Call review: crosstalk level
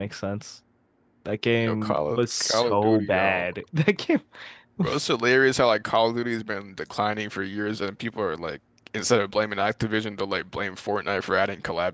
present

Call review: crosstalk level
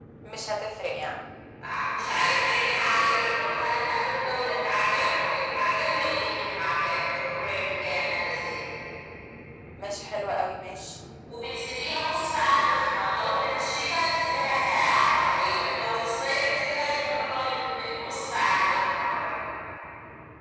none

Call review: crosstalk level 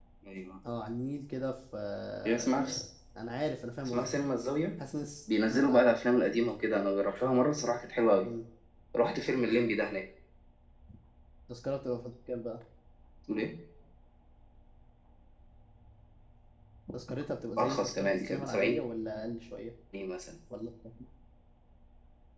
present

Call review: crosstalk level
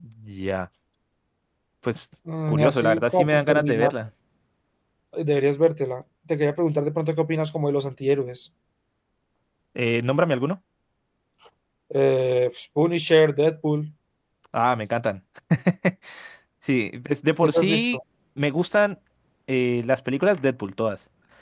present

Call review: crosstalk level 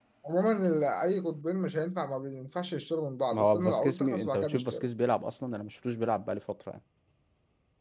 present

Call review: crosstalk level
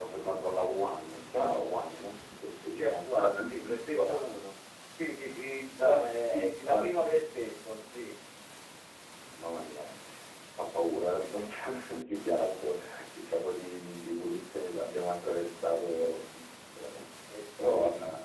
present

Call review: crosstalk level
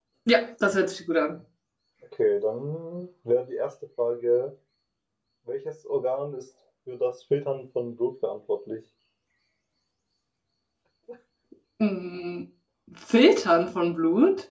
none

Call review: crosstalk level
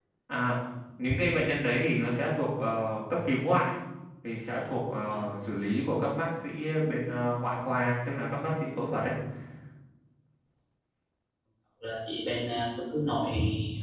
none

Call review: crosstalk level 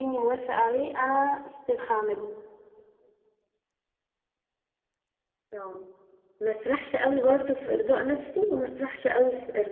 none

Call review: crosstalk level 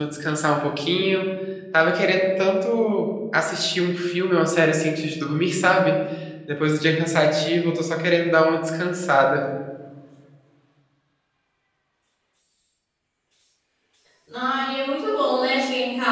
none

